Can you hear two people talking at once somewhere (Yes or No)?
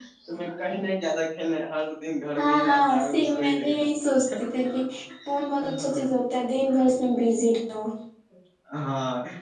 Yes